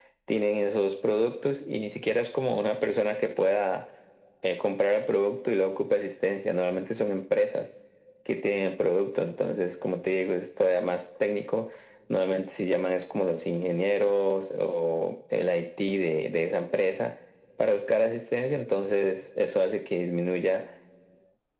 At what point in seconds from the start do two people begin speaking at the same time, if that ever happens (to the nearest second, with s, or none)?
none